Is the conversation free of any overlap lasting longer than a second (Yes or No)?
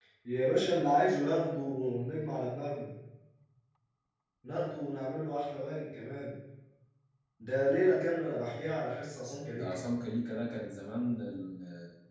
Yes